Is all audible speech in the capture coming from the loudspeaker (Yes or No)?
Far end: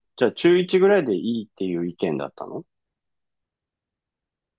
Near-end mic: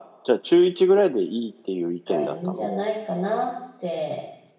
No